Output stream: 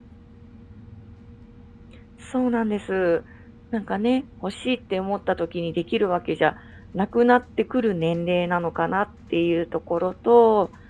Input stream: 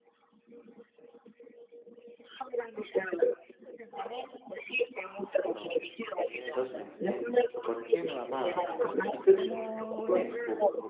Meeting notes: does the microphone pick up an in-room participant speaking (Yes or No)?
Yes